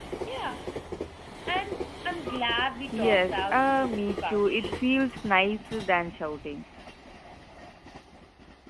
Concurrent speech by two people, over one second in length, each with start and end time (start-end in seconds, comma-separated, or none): 2.9-4.8